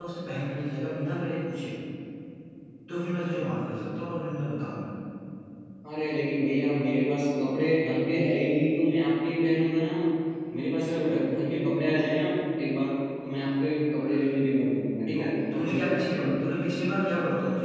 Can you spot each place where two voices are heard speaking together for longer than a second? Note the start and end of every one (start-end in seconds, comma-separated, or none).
15.1-16.5